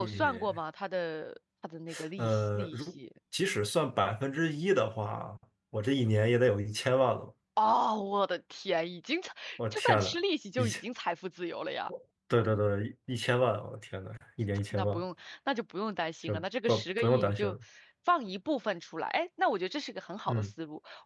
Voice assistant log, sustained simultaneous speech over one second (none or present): present